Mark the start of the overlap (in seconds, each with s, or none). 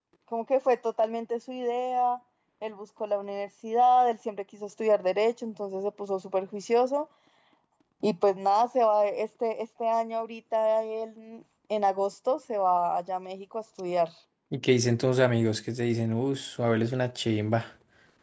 none